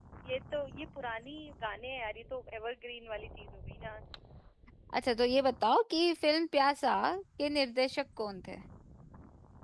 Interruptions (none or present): none